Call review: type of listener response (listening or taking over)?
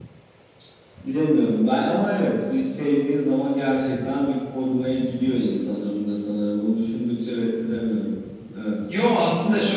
taking over